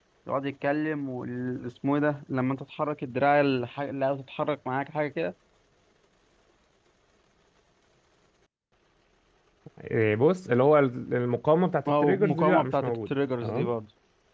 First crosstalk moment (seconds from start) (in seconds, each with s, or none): 11.9 s